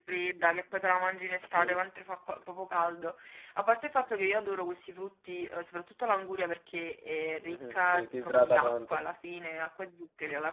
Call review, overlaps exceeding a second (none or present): present